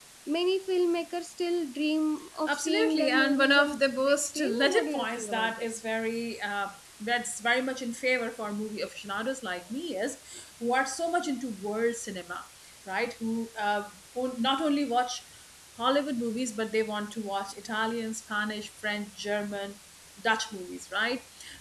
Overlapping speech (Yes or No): Yes